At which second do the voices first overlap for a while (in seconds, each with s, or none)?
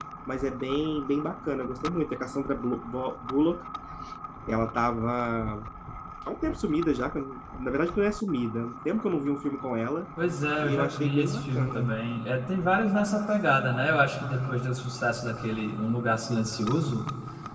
10.6 s